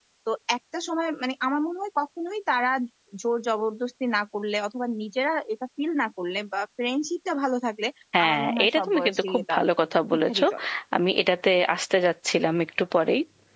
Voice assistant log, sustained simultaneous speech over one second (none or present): present